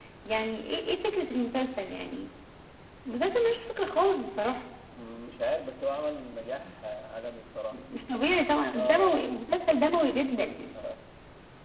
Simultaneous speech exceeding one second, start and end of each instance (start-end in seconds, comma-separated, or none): none